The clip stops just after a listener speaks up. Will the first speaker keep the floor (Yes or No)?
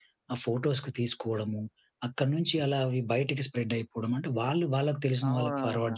Yes